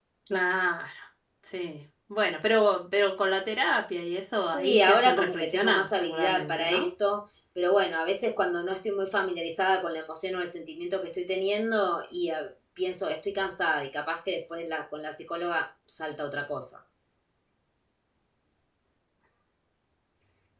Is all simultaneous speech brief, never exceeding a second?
No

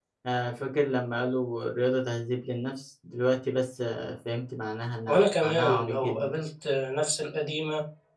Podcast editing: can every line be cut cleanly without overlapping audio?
No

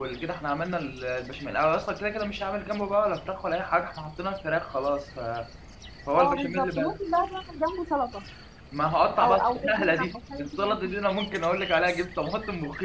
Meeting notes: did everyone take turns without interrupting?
No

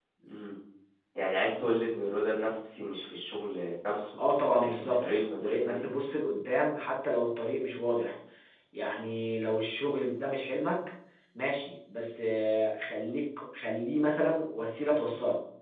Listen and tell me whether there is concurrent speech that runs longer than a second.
Yes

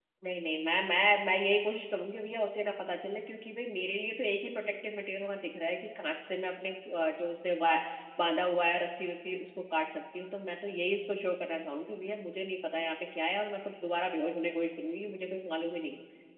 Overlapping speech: No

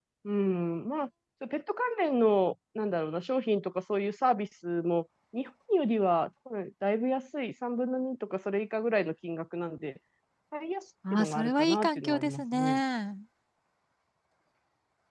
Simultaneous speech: Yes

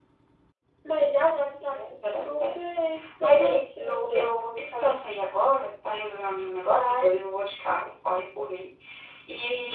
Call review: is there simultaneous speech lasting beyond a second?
Yes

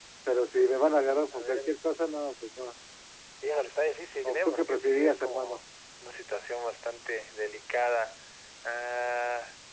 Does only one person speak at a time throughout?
No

